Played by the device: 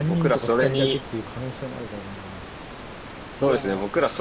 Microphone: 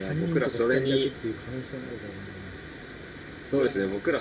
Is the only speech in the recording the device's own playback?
Yes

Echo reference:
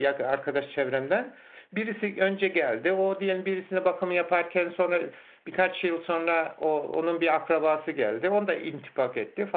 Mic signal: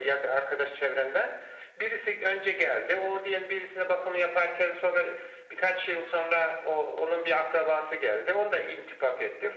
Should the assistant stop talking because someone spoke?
No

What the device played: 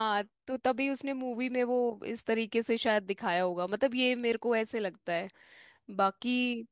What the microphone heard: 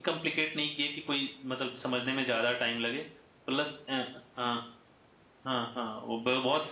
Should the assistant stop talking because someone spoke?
Yes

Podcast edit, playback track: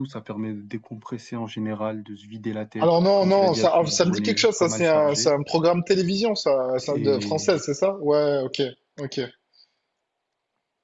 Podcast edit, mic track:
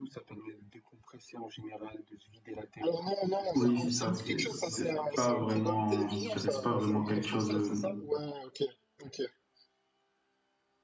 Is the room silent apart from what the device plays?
No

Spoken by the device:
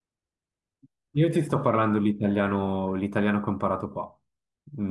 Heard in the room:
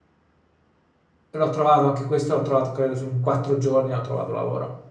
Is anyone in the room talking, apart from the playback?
Yes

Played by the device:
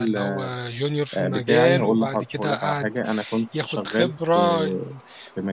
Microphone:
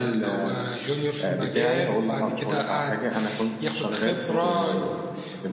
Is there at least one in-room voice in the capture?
Yes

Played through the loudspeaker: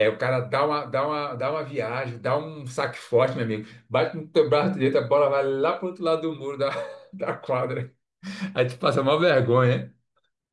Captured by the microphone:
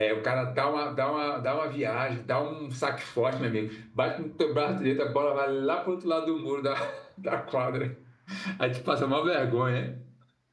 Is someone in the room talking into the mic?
No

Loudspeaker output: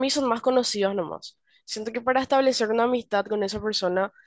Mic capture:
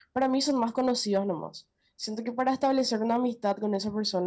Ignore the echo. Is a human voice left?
No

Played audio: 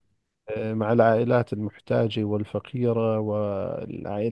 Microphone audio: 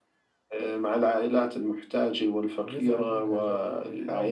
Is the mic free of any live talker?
No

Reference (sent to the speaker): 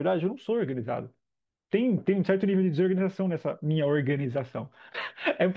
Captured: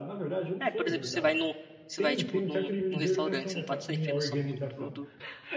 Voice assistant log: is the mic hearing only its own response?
No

